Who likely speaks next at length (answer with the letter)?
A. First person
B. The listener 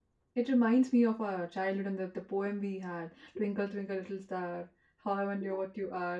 A